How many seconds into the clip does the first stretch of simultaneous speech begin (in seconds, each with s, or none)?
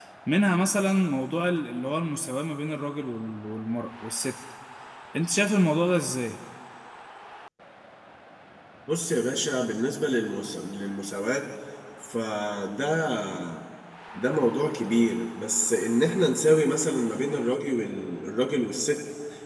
none